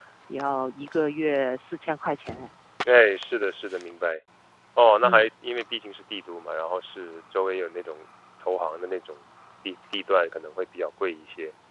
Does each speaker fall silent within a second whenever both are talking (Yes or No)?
Yes